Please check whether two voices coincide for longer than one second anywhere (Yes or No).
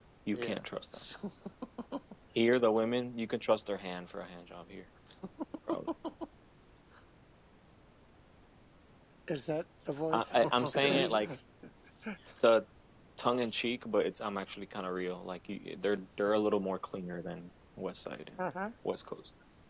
Yes